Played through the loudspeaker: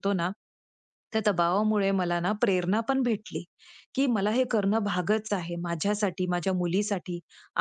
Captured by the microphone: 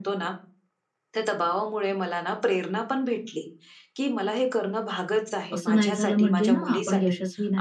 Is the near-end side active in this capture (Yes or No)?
Yes